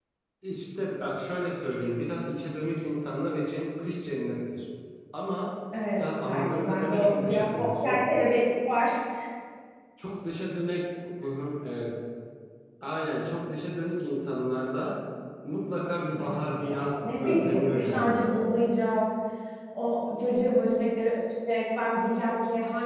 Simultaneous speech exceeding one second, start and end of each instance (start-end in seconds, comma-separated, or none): 5.9-8.0, 16.2-18.2